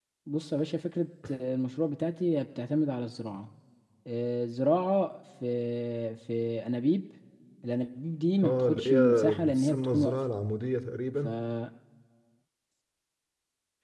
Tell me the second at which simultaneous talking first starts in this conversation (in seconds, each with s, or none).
8.4 s